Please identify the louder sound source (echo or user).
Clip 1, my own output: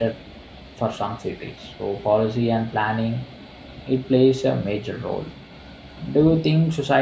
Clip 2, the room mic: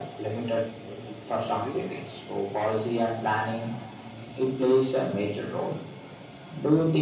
echo